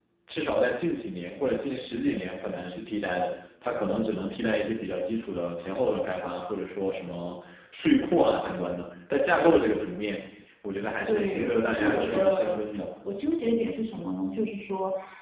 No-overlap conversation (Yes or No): No